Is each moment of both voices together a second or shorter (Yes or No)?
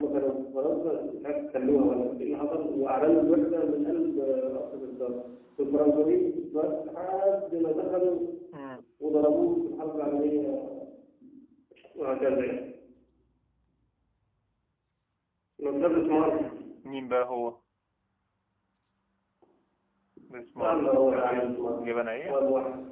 No